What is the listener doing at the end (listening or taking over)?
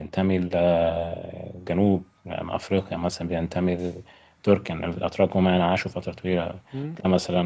listening